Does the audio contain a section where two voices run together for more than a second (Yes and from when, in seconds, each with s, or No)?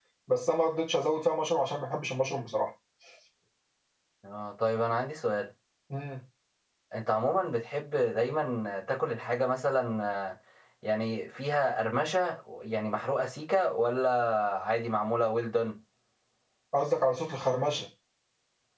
No